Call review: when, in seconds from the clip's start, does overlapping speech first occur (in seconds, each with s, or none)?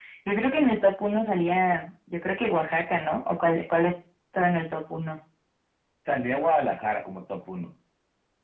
none